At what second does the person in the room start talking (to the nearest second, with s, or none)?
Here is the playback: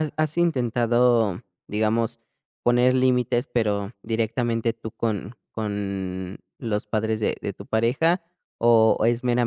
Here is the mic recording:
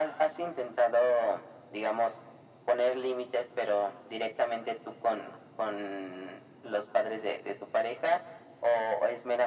none